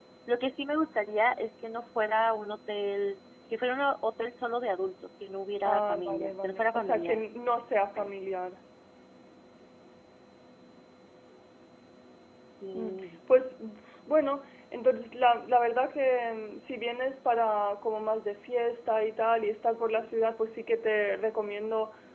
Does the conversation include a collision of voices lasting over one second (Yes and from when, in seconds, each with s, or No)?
Yes, from 5.6 s